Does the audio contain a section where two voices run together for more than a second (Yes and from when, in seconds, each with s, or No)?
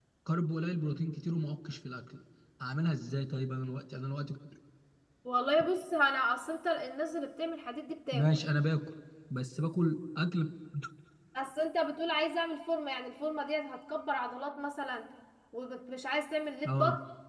No